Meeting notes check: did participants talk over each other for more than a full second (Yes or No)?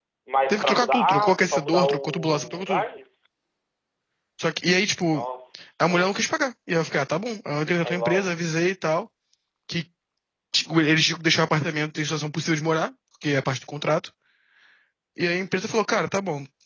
Yes